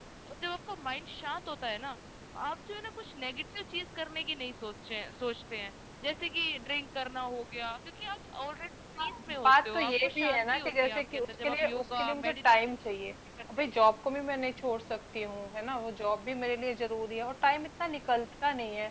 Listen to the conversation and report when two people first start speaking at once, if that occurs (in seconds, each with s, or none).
9.0 s